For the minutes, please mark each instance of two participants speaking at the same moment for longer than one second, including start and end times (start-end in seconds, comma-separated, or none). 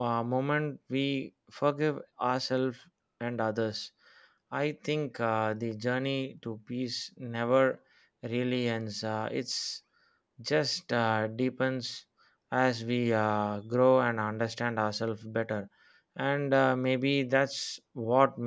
none